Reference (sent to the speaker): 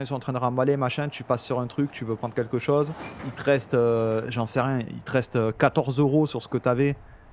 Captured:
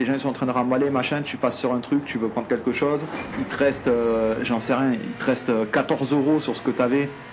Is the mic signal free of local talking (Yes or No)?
Yes